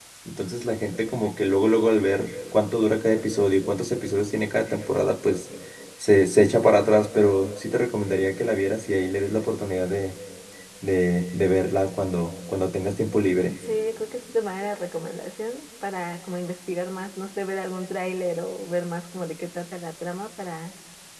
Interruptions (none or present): none